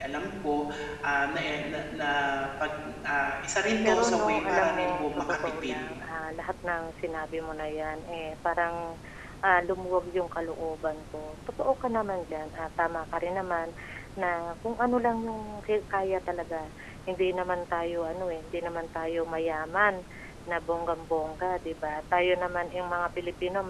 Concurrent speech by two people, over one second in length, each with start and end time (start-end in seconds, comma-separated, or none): 3.9-5.8